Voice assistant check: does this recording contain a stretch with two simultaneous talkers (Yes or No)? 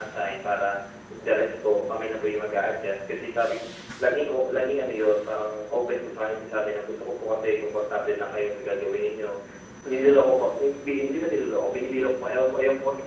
No